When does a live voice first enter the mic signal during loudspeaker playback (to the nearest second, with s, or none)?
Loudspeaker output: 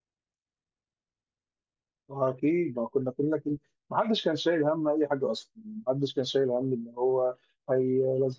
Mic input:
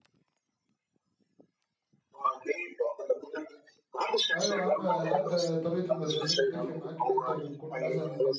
4 s